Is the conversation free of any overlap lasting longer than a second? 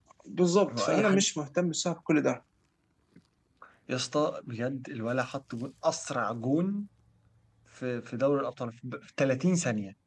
Yes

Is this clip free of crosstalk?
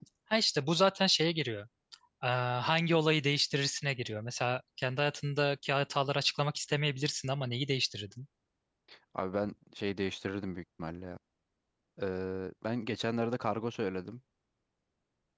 Yes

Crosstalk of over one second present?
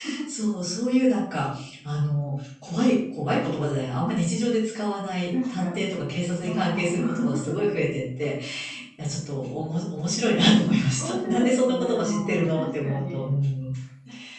Yes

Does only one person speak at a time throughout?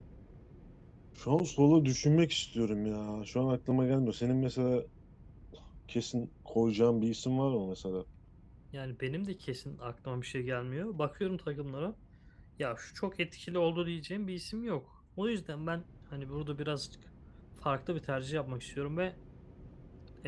Yes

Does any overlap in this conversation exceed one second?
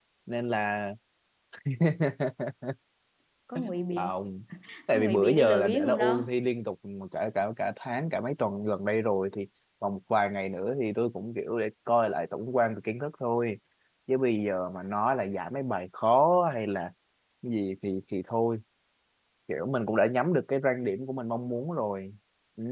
Yes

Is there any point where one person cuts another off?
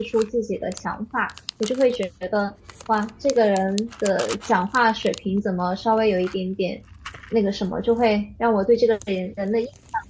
No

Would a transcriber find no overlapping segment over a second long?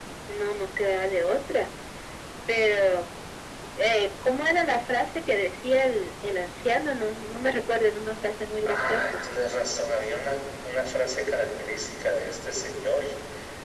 Yes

